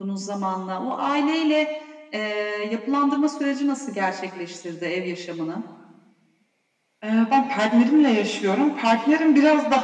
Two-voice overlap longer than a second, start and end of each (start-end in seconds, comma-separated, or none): none